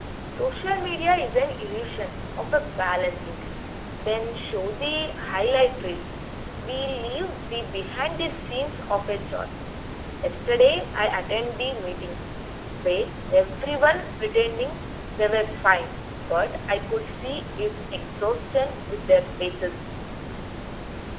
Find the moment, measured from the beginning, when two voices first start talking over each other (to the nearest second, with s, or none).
none